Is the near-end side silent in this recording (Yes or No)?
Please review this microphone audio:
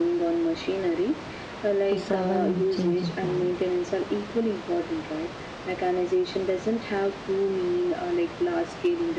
No